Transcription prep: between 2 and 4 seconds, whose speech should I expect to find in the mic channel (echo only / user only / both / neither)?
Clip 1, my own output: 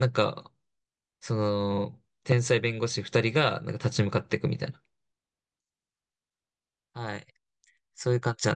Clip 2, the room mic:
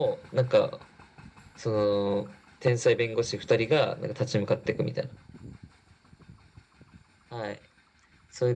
echo only